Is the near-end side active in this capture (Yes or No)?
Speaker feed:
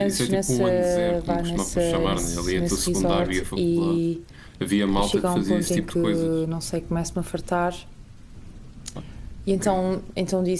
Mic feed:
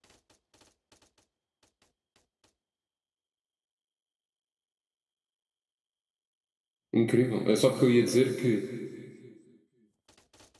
Yes